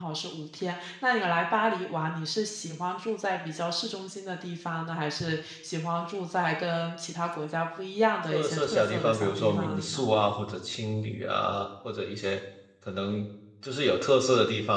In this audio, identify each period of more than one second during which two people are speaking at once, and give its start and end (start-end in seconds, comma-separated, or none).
8.3-10.1